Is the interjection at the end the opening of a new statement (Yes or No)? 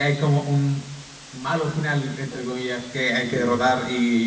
No